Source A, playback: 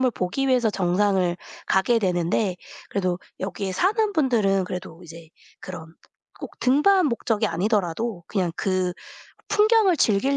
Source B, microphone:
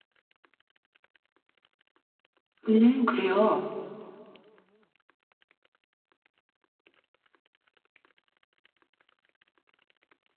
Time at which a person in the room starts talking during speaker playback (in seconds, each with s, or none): 2.7 s